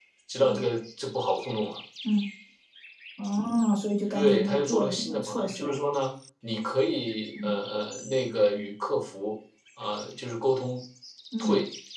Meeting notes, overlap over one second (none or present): present